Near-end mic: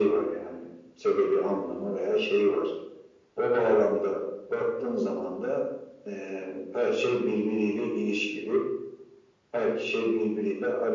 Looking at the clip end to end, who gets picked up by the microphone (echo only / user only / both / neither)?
echo only